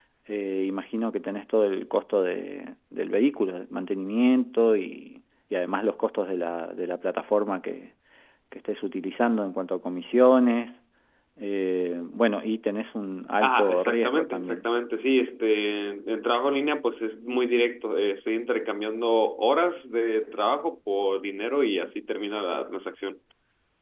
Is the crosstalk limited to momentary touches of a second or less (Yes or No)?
No